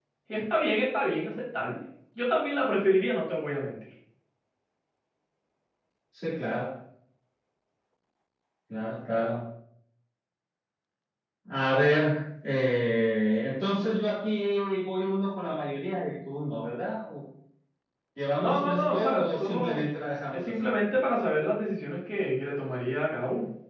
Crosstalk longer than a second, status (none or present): present